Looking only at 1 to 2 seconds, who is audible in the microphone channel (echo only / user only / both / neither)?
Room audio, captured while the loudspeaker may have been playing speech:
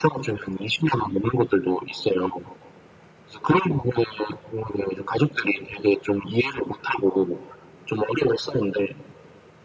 echo only